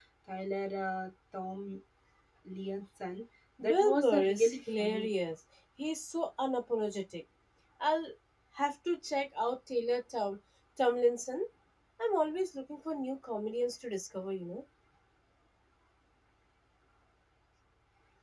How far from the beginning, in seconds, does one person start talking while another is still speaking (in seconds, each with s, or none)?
3.6 s